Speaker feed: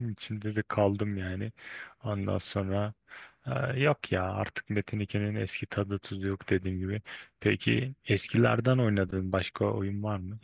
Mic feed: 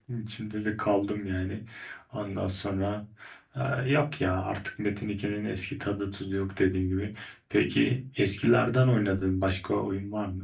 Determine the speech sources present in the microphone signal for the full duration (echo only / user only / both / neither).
echo only